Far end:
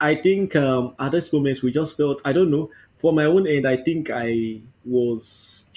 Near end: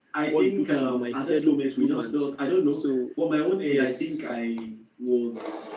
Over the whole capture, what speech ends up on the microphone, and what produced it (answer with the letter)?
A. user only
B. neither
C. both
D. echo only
C